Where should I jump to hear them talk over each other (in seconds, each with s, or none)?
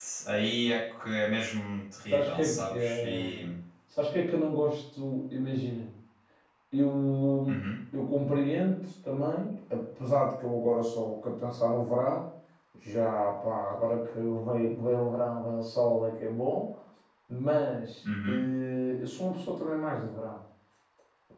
2.1 s